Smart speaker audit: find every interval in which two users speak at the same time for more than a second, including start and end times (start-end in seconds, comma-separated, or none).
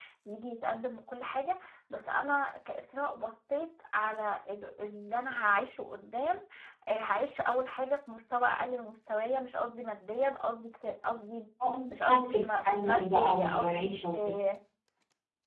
11.9-14.1